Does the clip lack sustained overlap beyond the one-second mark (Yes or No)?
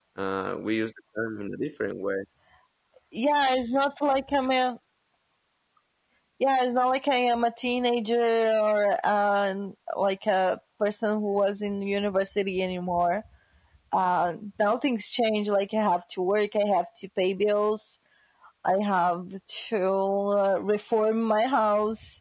Yes